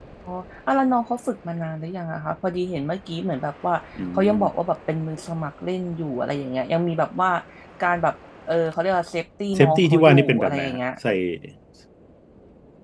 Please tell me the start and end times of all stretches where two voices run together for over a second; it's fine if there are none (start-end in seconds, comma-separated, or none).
9.6-10.8